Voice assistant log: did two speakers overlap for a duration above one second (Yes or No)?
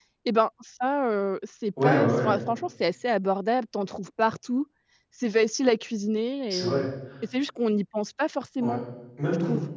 No